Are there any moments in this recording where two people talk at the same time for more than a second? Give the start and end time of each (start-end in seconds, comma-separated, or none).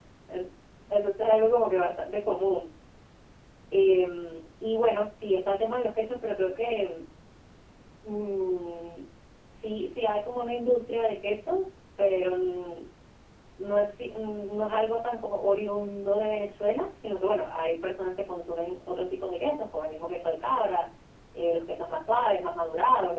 none